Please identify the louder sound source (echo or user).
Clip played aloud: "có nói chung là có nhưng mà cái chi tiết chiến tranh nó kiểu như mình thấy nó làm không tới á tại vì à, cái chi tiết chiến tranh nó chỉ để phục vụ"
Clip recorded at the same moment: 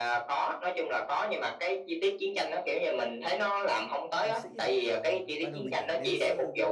echo